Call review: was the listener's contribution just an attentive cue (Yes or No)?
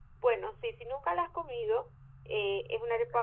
Yes